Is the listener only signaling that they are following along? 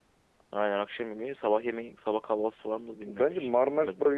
No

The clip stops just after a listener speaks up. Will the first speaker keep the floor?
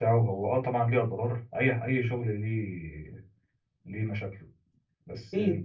Yes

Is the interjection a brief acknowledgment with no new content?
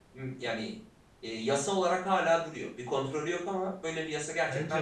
No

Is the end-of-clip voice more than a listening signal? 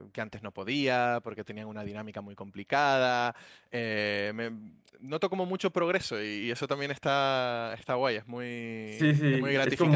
Yes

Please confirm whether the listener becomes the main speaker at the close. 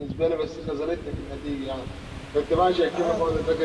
No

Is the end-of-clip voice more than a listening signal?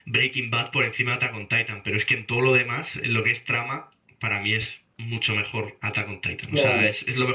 Yes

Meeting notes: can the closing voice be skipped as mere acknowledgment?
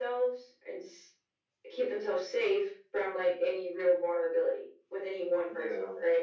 No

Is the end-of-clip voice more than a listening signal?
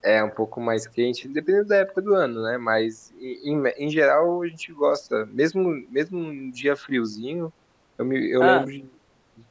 No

